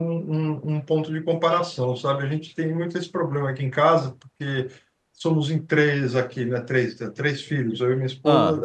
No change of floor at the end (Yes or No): Yes